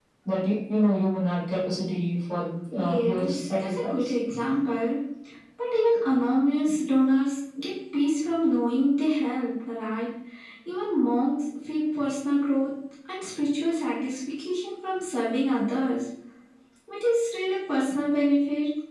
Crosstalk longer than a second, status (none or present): present